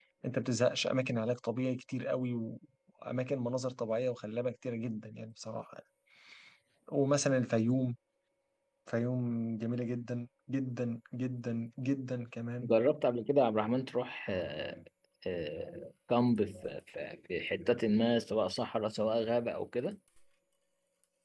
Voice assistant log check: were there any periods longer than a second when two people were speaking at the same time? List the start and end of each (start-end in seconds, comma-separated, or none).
none